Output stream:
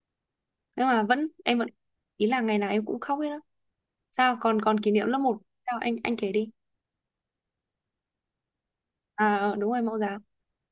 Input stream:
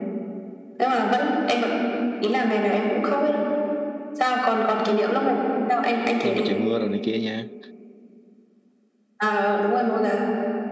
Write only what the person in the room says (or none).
nhưng mà trời mưa rồi này kia nha